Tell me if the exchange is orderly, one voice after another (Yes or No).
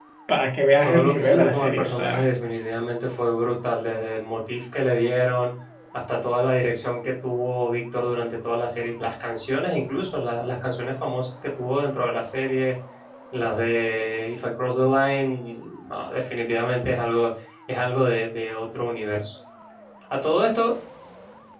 No